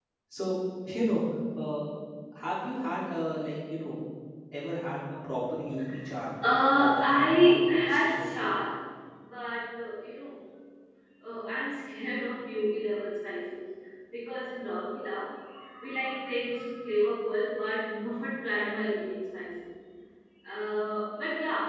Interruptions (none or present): present